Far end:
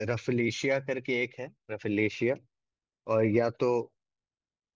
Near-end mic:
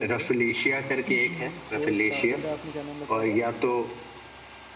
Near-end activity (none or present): present